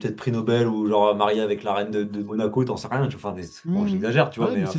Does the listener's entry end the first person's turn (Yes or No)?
Yes